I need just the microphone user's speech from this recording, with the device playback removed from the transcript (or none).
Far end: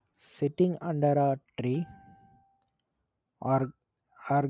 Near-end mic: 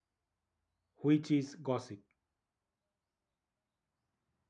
which is gossip.